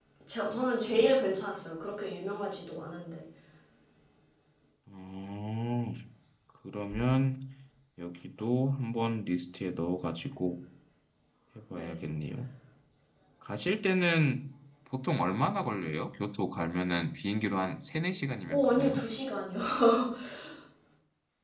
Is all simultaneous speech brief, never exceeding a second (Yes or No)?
Yes